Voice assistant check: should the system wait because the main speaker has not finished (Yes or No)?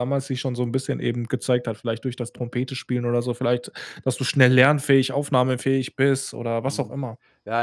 No